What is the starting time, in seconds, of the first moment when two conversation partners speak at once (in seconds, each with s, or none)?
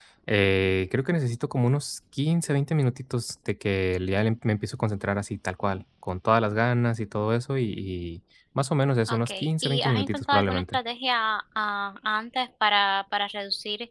9.1 s